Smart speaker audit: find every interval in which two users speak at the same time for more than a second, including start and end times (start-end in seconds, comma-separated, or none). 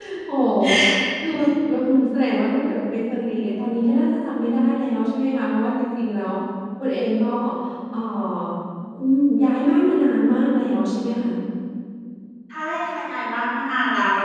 none